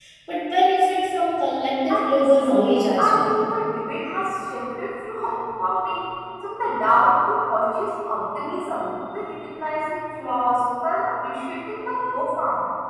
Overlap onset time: 1.9 s

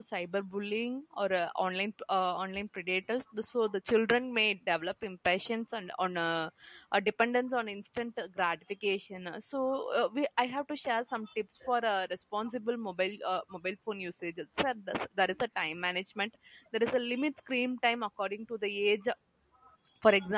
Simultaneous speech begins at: none

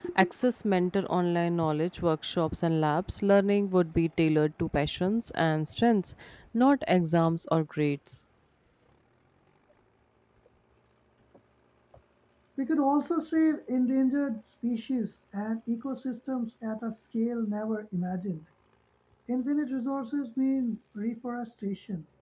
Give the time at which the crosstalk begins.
none

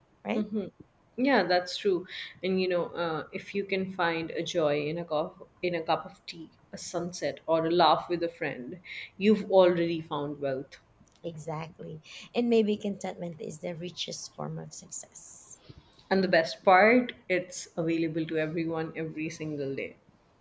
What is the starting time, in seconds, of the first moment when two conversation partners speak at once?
none

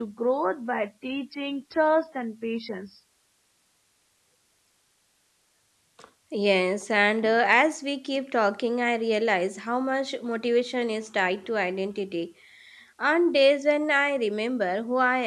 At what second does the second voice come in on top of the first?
none

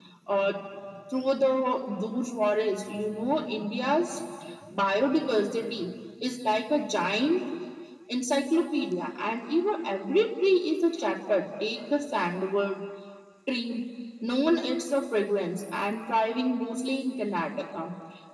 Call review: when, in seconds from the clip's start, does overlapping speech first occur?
none

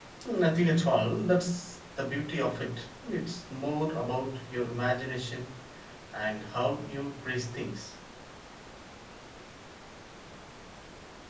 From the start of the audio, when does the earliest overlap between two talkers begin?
none

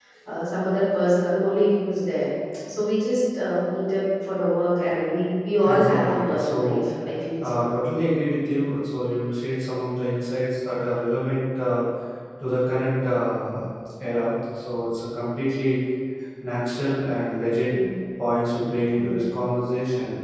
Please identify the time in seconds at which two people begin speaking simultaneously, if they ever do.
5.6 s

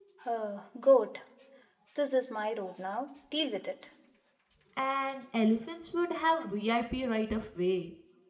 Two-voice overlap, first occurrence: none

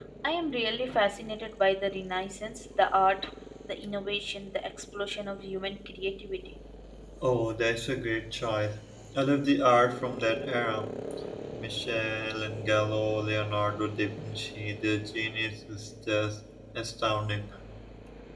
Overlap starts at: none

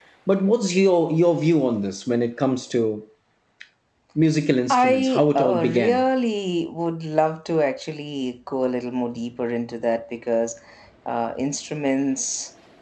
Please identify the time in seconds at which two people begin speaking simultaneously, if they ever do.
4.7 s

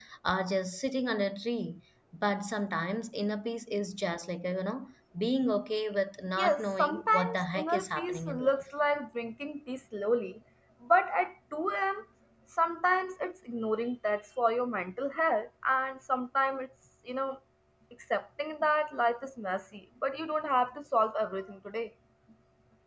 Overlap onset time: 6.4 s

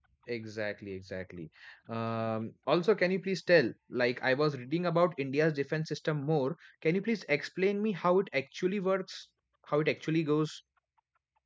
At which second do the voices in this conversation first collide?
none

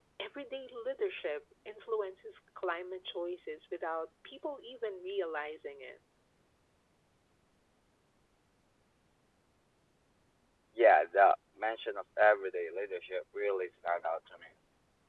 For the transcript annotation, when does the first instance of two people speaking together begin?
none

